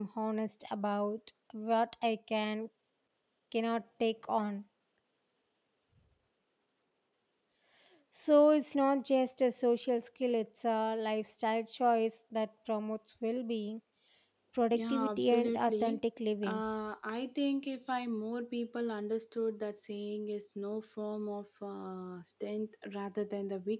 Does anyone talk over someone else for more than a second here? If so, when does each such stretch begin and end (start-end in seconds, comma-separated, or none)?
14.7-16.0